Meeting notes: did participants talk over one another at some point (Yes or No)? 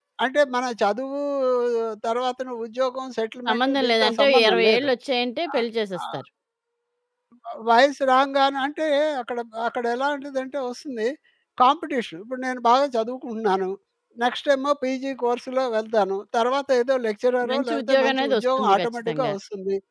Yes